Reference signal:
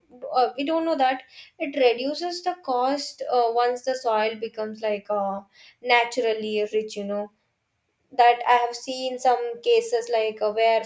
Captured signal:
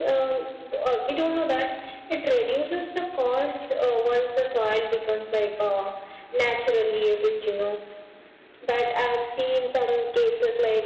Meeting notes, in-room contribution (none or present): none